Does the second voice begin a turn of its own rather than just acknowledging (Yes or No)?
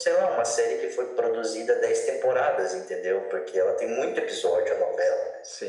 Yes